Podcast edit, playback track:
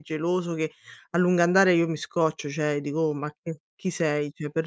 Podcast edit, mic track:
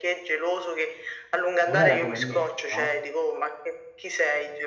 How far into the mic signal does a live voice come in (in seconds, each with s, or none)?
1.6 s